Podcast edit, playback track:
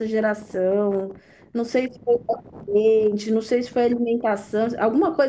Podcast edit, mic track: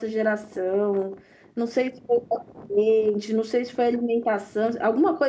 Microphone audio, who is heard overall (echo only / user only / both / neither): echo only